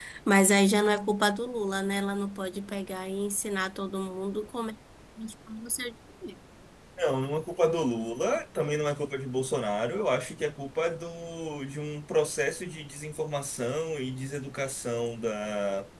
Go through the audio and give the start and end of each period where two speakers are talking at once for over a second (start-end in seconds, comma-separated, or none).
none